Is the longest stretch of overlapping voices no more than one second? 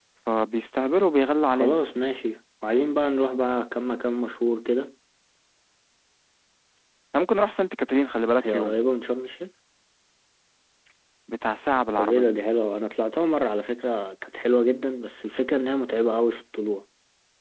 Yes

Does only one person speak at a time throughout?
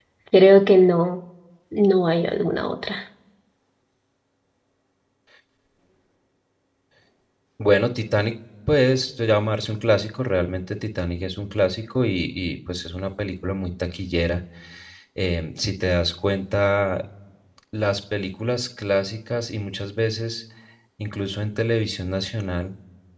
Yes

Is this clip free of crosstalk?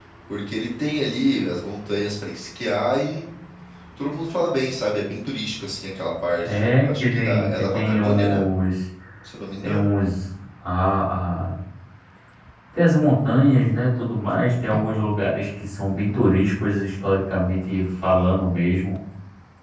No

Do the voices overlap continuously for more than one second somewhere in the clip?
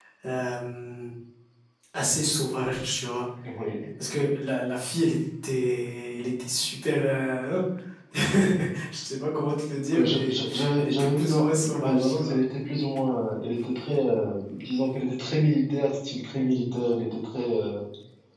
Yes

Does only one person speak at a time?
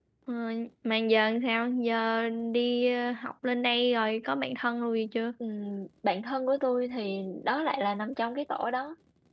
Yes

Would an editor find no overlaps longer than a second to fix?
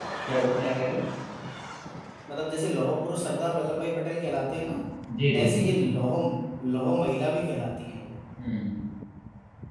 Yes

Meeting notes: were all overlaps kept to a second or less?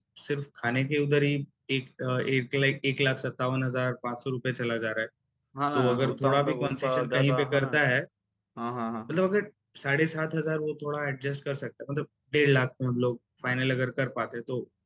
No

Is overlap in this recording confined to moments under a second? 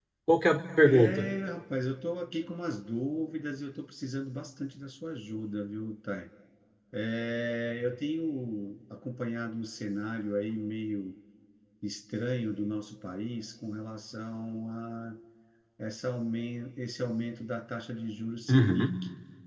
Yes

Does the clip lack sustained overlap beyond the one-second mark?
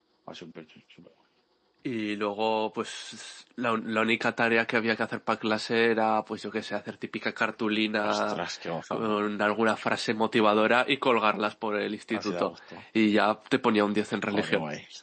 Yes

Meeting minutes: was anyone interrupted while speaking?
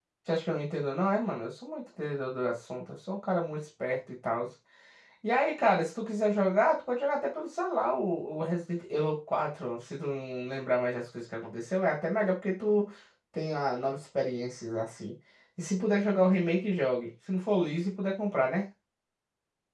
No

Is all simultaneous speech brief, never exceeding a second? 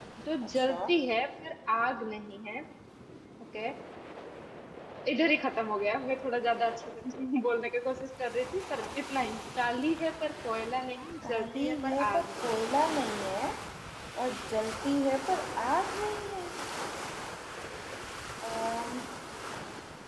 No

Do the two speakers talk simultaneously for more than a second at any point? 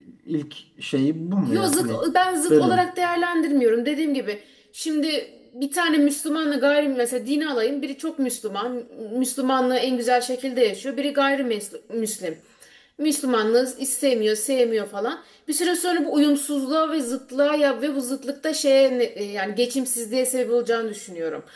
No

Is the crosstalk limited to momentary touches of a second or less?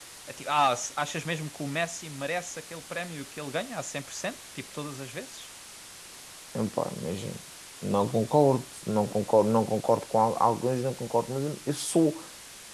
Yes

